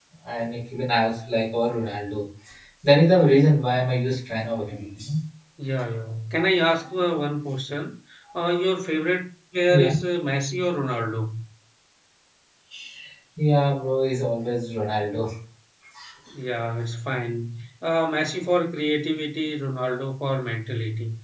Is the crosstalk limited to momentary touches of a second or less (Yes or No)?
Yes